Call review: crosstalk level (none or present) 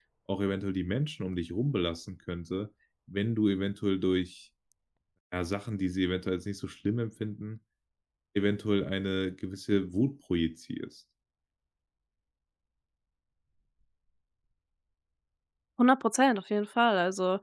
none